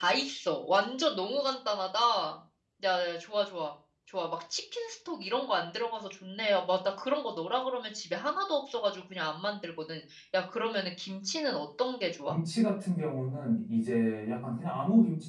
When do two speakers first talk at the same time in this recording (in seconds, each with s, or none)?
none